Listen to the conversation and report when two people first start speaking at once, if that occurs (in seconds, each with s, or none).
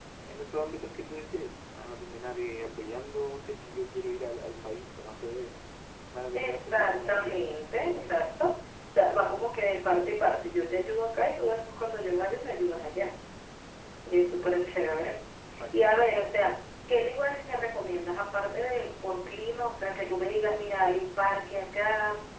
6.3 s